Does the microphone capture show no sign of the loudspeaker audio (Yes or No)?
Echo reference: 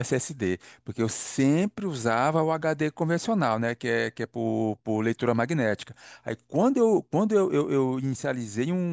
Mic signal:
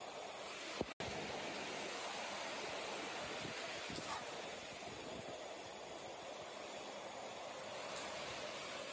Yes